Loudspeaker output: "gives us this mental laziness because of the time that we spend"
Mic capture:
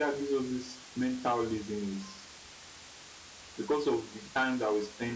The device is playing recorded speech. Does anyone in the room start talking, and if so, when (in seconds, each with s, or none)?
none